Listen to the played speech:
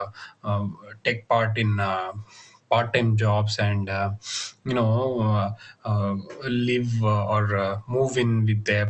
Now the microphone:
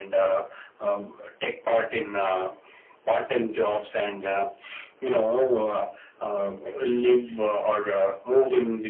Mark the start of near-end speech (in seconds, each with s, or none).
none